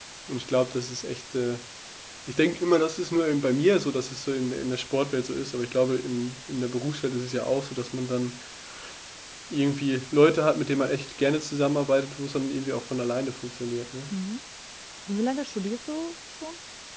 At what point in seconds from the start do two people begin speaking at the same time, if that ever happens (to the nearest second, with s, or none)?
none